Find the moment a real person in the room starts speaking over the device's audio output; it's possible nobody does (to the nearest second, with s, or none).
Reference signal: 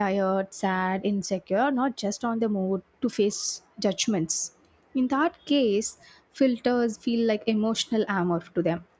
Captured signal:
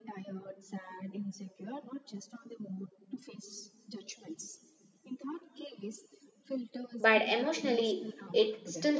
7 s